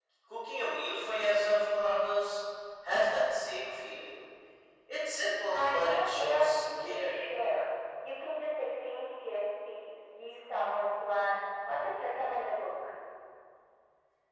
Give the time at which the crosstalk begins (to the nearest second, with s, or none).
6 s